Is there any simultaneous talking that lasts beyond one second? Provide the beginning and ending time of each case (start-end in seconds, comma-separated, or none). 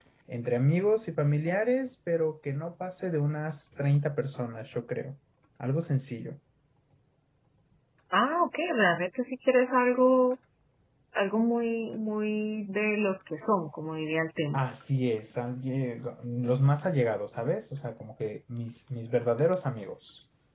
none